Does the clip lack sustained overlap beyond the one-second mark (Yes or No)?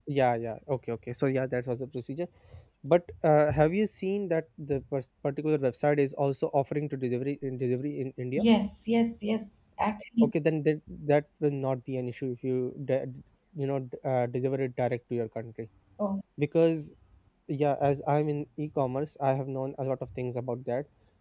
Yes